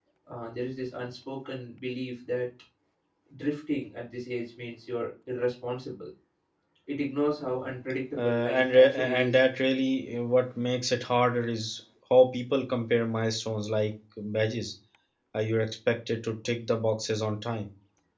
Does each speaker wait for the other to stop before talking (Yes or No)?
No